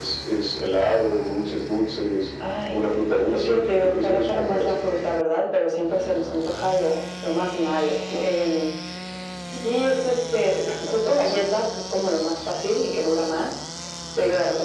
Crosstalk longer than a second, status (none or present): present